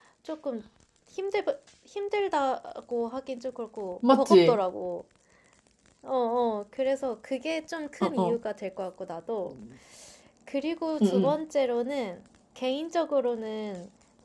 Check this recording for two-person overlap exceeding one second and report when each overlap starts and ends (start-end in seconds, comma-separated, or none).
none